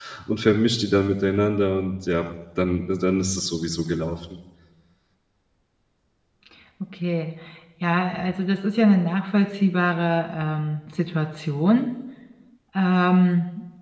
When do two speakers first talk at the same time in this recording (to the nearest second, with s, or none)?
none